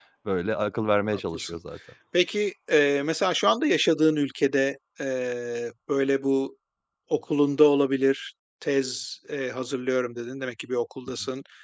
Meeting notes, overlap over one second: none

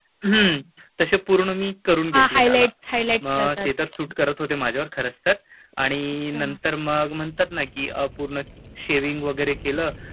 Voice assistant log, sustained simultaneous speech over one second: none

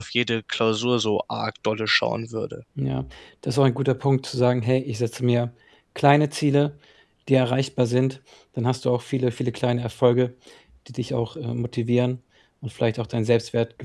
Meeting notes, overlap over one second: none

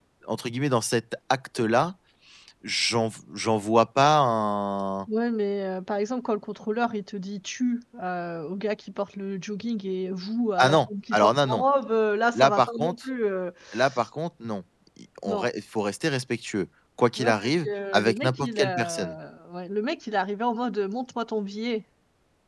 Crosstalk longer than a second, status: present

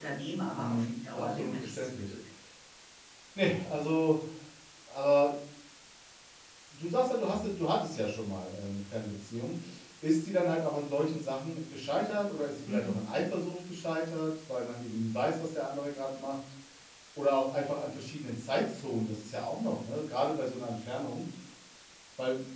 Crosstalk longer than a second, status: present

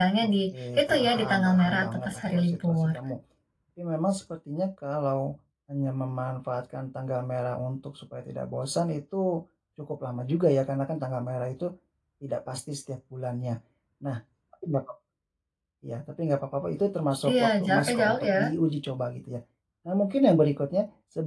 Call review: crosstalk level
present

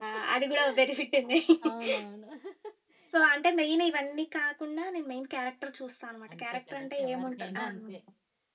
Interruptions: present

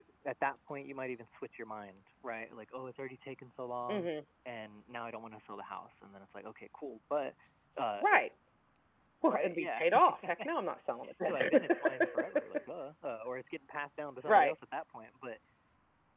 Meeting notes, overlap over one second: present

